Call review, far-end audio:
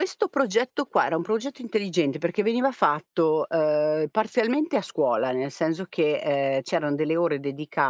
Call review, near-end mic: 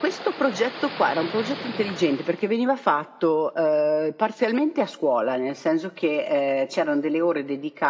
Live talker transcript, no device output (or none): none